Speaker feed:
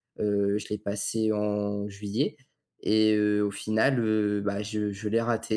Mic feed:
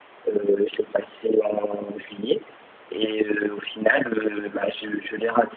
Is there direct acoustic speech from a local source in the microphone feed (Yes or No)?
No